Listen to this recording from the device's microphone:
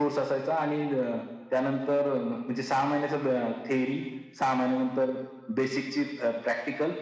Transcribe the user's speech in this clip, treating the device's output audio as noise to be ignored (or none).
none